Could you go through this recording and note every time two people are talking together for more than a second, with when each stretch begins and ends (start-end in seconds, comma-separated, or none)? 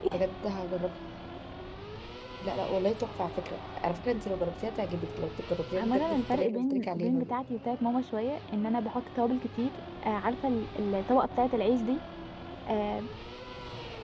5.8-7.3